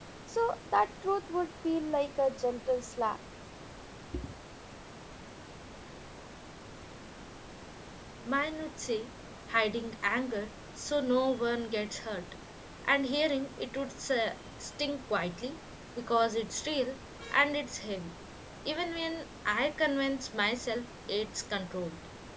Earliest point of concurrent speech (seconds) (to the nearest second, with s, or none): none